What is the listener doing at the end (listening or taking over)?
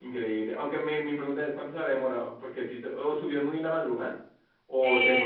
taking over